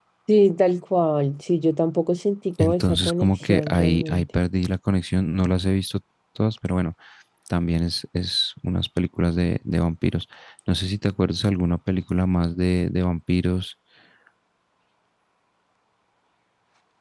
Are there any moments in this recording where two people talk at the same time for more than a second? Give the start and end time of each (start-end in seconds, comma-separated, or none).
2.6-4.3